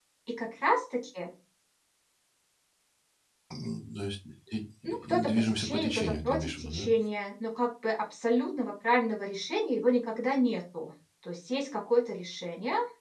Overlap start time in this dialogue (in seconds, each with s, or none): 5.1 s